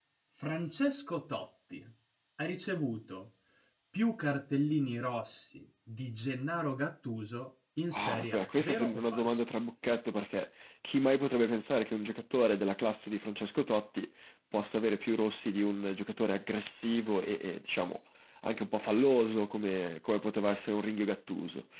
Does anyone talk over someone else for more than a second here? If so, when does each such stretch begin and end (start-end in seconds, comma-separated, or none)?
8.0-9.4